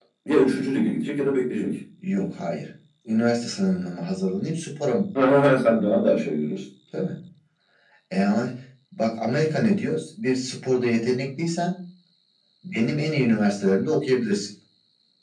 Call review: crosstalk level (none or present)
none